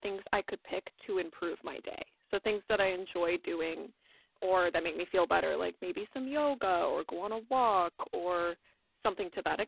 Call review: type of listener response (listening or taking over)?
listening